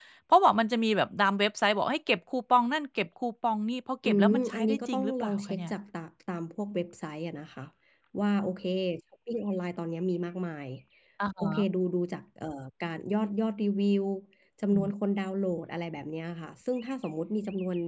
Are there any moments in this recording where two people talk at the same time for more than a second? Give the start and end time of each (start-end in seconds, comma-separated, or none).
4.0-5.7